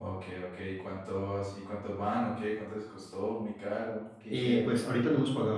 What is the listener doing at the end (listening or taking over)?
taking over